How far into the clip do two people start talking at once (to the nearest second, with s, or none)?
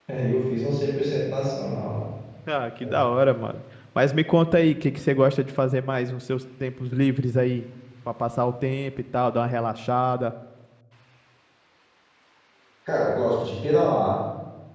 none